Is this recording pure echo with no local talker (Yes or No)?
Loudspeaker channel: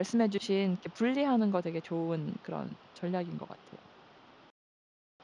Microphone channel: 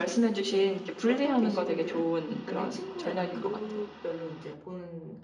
No